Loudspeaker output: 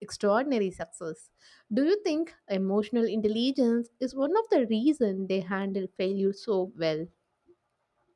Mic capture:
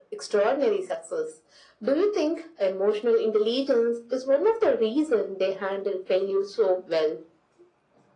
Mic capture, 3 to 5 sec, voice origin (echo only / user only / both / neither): echo only